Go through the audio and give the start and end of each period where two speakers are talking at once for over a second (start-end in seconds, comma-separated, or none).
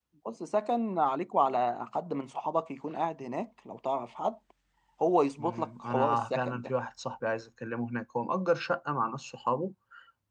5.4-6.7